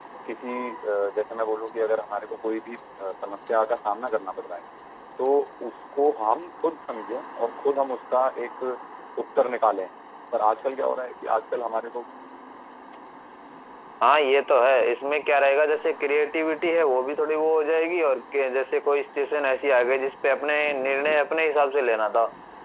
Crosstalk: none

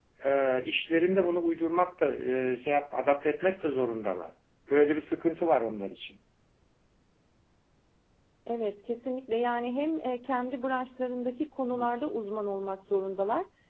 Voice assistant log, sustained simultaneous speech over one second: none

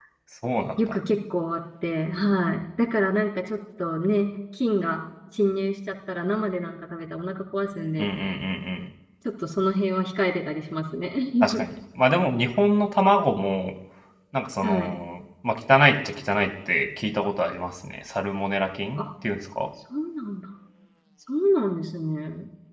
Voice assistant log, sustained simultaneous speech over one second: none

